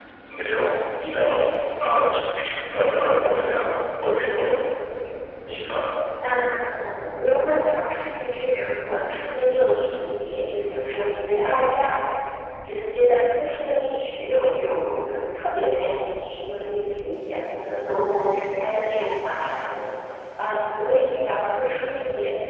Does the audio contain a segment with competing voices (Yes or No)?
No